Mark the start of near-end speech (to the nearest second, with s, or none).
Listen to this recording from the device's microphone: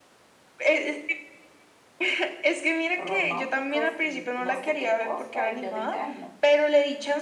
3 s